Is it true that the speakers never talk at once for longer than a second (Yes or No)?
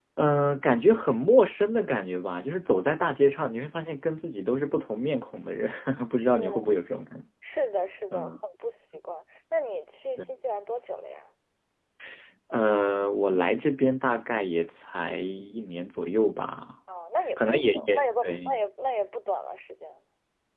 No